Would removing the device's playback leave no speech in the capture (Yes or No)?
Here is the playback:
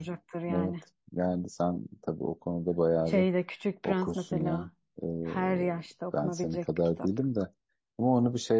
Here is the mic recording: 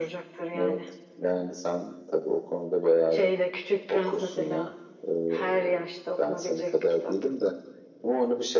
Yes